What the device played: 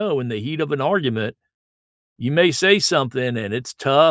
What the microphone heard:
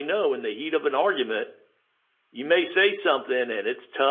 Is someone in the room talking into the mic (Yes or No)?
No